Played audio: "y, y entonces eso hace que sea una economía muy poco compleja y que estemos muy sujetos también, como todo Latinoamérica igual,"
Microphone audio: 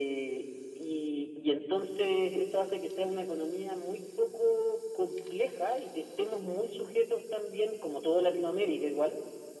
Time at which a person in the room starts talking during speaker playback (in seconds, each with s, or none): none